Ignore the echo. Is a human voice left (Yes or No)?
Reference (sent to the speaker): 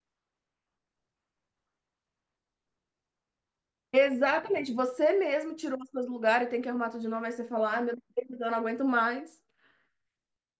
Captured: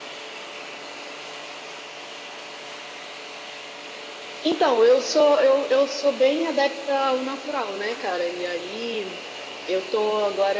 Yes